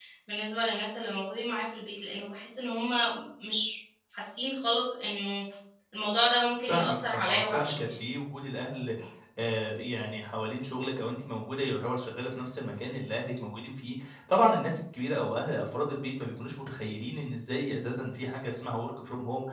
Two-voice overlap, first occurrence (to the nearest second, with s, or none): 7 s